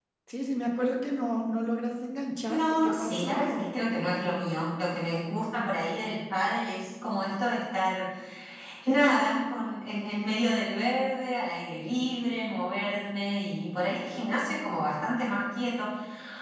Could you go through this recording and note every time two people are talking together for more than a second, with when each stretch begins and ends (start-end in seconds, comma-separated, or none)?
2.5-3.8